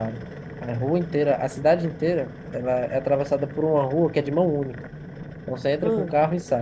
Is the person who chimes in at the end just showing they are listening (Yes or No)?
Yes